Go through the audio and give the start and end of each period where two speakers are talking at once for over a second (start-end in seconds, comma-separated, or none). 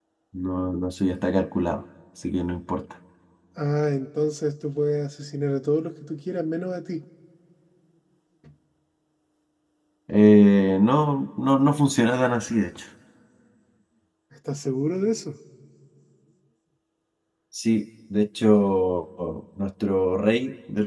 none